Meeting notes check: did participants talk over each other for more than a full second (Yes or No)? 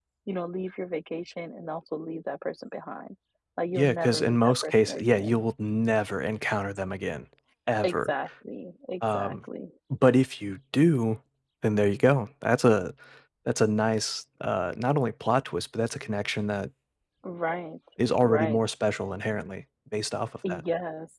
Yes